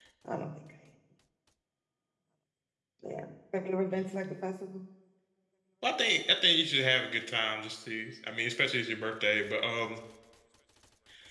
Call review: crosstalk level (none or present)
none